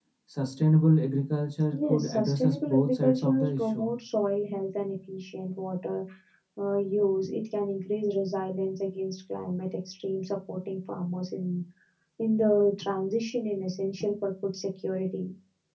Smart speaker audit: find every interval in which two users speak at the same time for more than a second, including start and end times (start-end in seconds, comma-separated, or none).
1.7-3.9